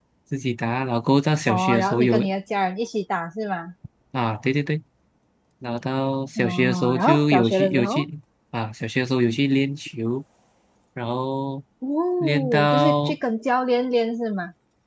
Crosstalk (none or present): present